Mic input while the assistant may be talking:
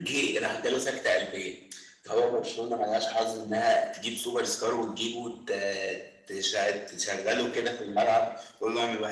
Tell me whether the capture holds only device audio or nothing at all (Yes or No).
Yes